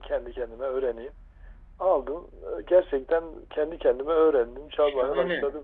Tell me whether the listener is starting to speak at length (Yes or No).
Yes